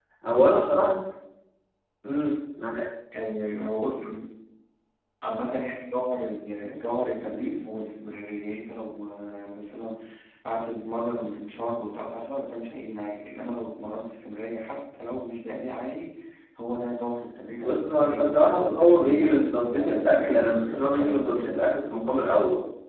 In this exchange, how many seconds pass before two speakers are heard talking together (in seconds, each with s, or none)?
17.6 s